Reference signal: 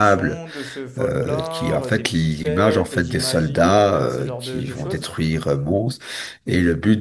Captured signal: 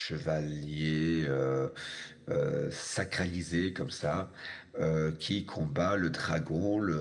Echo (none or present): none